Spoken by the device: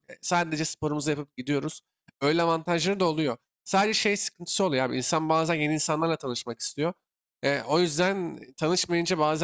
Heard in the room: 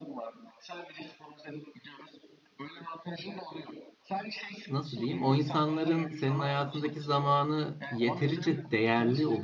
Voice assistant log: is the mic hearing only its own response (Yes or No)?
No